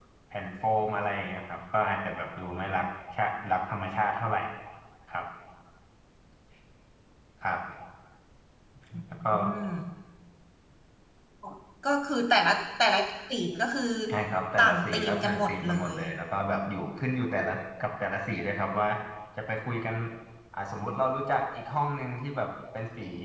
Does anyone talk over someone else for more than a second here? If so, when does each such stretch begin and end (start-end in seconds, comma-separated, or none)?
14.6-16.0